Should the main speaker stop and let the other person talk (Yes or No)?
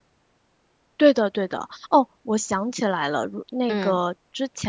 No